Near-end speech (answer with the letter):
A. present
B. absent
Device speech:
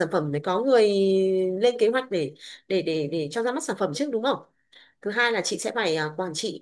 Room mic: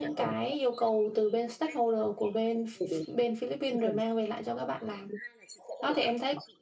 A